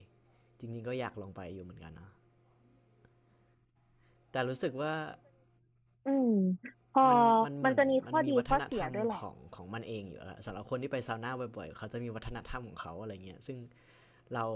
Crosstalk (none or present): present